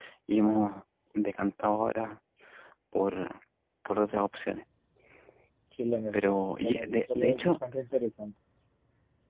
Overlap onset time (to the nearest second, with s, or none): 6 s